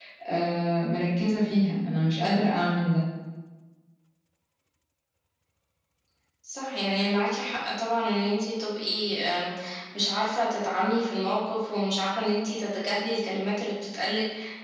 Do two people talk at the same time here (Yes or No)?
No